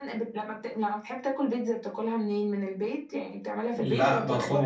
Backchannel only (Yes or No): No